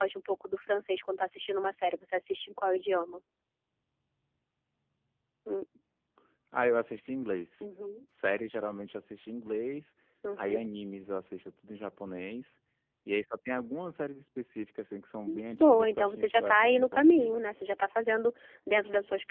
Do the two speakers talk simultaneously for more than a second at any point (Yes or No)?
Yes